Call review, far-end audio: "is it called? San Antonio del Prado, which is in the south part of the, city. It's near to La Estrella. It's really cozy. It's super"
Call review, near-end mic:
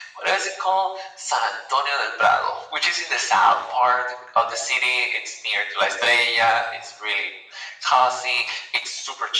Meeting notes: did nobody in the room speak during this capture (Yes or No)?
Yes